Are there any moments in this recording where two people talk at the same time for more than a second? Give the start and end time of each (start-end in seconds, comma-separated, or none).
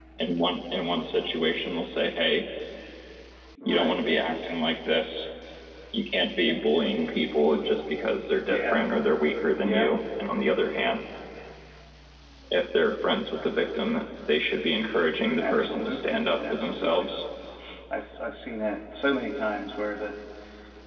15.4-17.1